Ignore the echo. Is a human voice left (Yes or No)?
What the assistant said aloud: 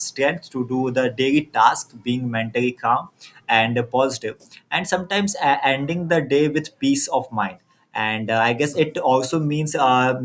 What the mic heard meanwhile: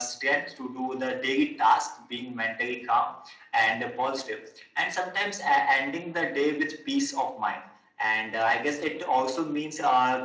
No